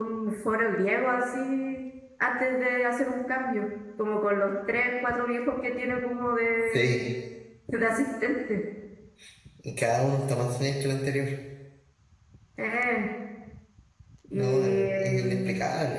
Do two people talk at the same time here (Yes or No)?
Yes